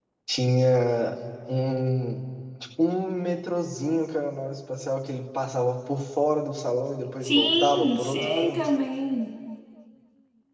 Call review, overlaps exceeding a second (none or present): present